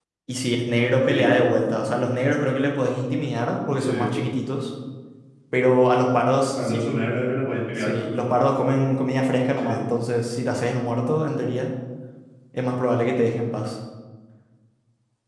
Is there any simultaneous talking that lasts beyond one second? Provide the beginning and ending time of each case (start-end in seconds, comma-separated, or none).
none